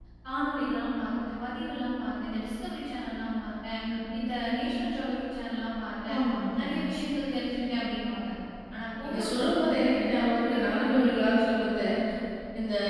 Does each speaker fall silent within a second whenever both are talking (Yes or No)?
No